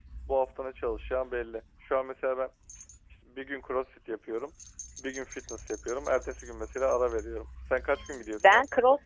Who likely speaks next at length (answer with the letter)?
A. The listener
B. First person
A